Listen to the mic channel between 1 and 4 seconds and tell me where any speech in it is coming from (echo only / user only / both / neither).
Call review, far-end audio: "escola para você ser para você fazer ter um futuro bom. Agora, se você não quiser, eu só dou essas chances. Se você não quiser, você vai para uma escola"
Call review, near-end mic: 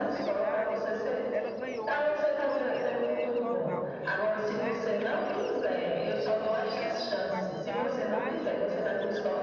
both